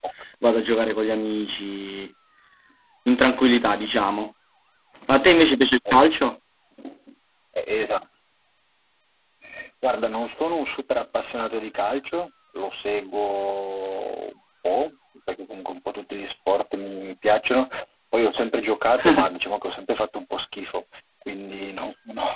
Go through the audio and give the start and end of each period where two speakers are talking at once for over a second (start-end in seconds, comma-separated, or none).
none